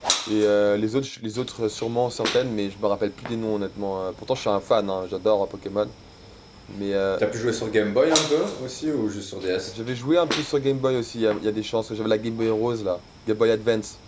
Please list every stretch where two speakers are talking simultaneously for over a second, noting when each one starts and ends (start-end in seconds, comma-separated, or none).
none